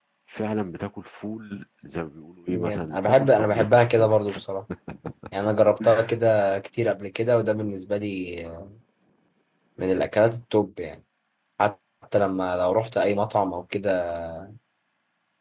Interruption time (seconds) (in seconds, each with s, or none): 2.5 s